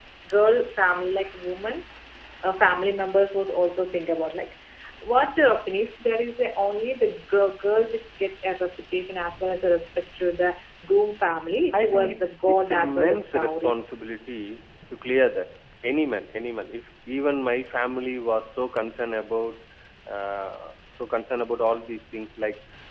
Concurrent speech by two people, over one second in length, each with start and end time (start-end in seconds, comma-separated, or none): 11.7-13.8